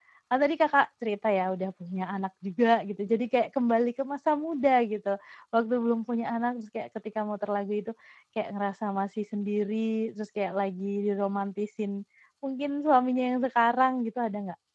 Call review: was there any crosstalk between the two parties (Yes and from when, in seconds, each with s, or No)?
No